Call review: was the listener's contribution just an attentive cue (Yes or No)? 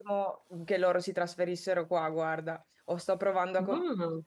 Yes